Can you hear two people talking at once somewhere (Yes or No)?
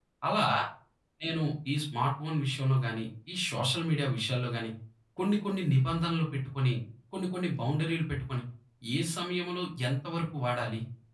No